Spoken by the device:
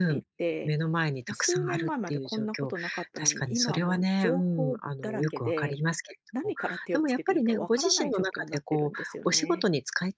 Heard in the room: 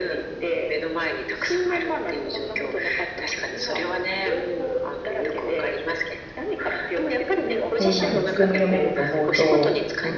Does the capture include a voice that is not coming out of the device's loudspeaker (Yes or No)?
Yes